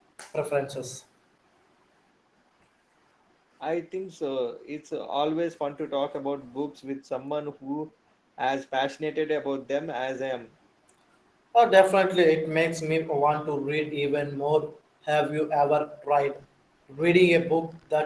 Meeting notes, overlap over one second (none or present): none